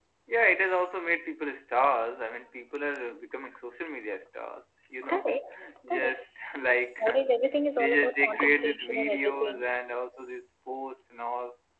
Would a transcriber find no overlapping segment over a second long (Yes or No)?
No